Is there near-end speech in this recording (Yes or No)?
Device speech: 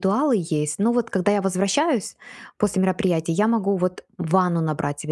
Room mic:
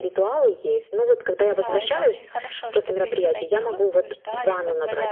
Yes